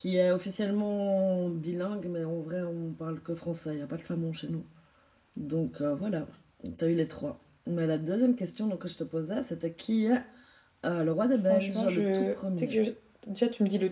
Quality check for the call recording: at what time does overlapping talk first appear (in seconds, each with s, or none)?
11.5 s